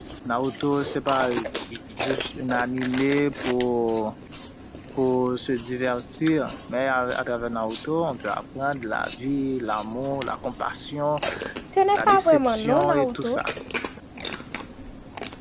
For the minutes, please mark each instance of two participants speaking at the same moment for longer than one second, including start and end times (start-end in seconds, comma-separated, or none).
11.9-13.4